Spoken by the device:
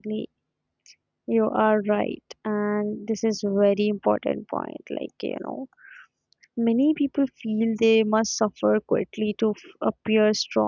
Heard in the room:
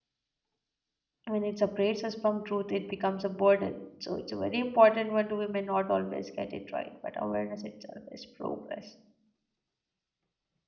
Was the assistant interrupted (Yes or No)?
Yes